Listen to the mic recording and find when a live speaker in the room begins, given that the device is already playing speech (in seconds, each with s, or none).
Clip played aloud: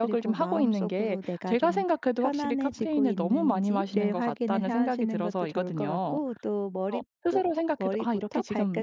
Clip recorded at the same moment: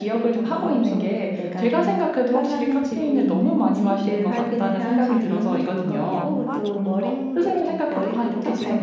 3.5 s